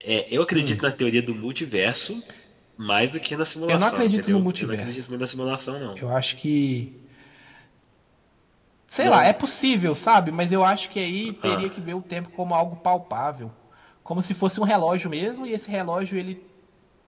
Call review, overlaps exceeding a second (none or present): present